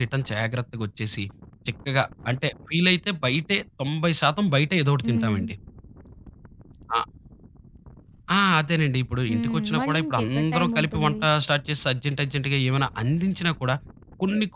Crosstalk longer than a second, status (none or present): present